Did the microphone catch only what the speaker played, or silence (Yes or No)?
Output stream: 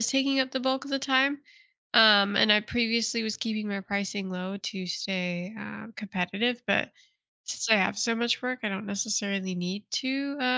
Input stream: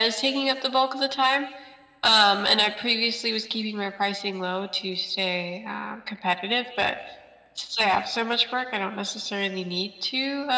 Yes